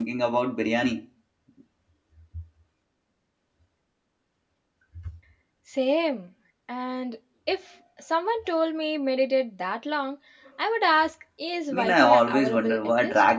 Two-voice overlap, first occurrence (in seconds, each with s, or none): 11.7 s